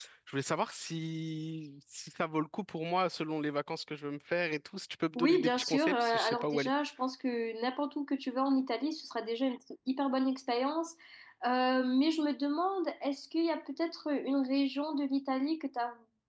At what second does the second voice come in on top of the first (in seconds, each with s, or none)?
5.2 s